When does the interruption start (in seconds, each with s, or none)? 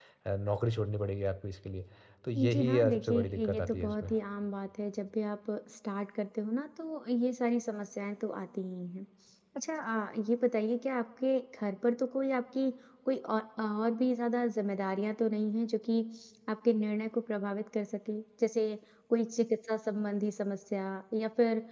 2.4 s